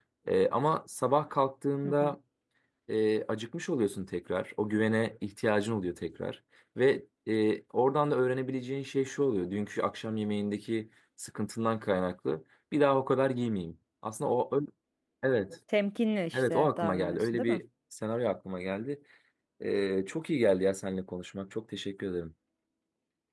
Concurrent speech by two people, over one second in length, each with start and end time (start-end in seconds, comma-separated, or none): 16.3-17.6